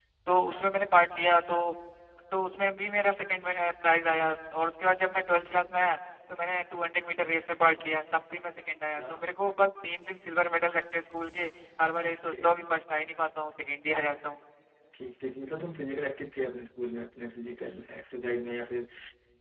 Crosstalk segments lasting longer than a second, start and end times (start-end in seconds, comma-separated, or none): none